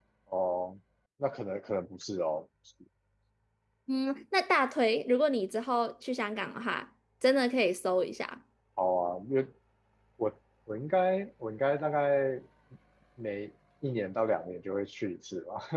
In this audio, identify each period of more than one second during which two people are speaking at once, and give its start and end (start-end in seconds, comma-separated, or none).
none